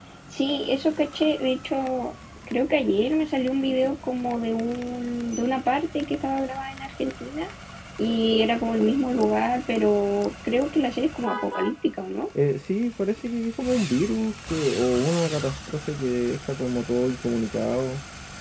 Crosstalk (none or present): none